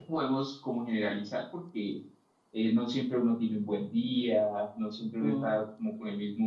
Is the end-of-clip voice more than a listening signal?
No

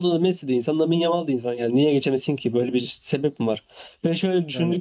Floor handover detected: No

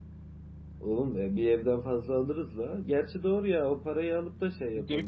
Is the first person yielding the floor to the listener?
Yes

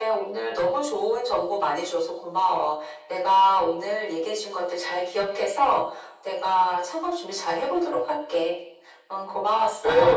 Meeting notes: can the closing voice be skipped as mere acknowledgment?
No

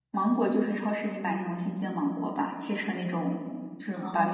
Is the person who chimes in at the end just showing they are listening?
Yes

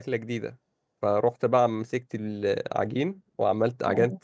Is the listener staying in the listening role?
Yes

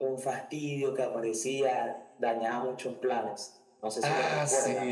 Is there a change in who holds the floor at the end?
Yes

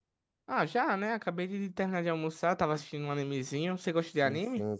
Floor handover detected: Yes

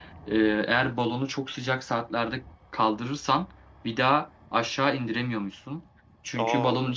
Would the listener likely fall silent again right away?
Yes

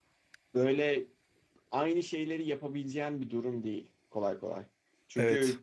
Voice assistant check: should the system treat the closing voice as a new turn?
No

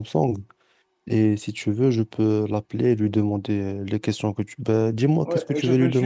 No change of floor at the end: No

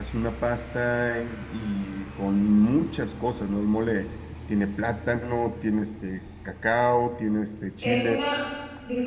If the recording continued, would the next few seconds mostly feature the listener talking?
Yes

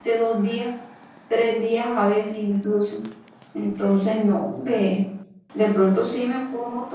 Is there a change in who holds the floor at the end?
No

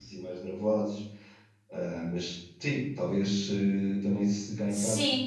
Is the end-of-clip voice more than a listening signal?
No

